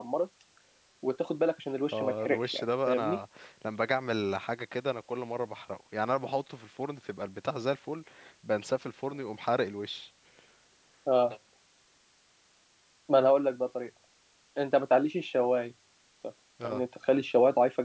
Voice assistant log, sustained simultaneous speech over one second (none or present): present